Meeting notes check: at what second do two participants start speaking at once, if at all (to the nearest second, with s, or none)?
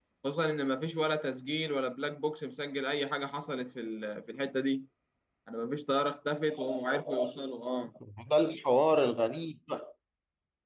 none